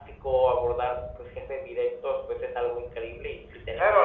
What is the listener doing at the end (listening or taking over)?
taking over